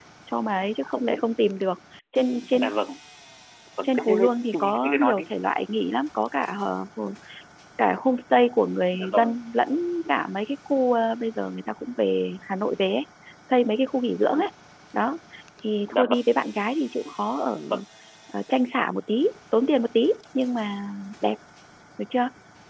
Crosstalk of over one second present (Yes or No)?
Yes